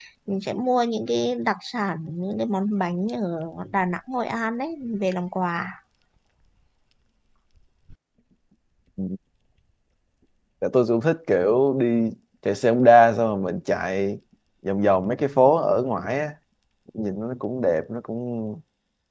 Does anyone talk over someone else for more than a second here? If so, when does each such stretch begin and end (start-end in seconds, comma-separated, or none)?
none